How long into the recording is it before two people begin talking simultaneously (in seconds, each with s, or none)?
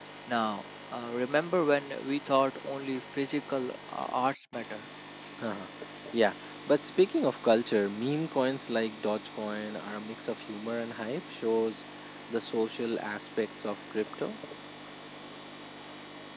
none